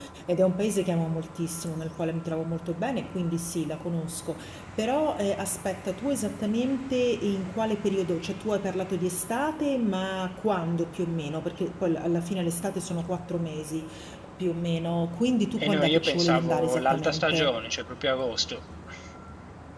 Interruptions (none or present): present